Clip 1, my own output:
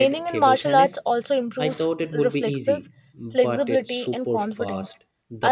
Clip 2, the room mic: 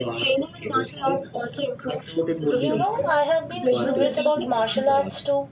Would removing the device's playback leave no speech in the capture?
No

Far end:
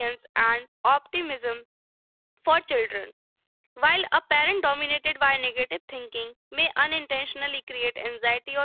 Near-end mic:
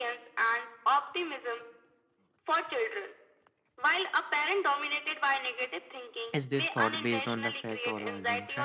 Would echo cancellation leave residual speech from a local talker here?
Yes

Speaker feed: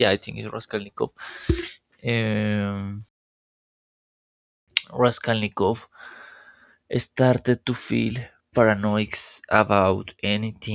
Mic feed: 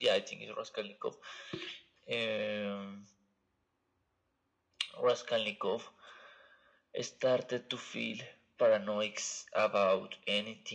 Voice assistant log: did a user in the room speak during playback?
No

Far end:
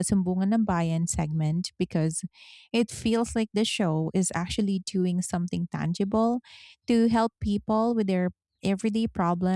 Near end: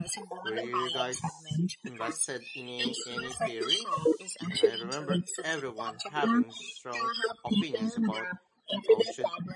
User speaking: Yes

